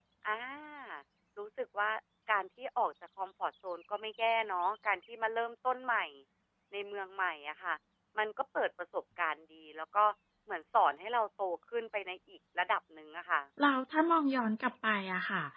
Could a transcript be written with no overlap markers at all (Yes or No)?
Yes